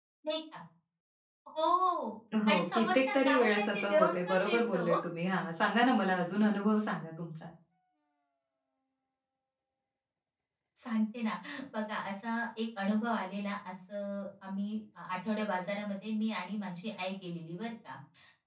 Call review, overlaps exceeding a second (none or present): present